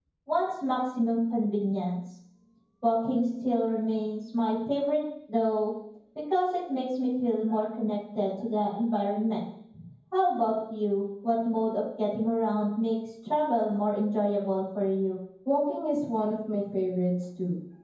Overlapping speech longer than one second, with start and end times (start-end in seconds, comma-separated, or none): none